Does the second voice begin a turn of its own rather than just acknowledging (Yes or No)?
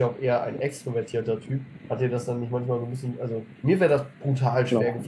No